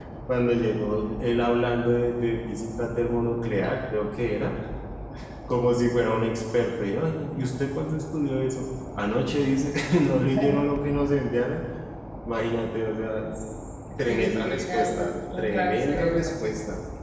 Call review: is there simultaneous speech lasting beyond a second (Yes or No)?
Yes